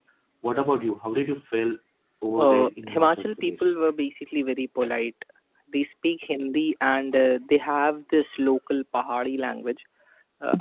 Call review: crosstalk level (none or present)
present